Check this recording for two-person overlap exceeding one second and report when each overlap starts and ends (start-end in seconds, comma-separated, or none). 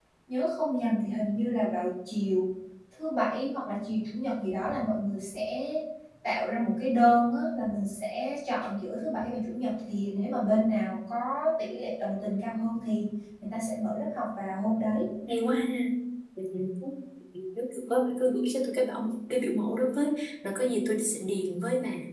none